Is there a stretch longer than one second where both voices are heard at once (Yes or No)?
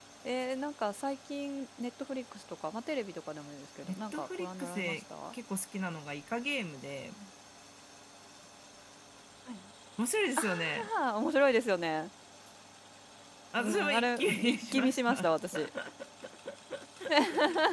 Yes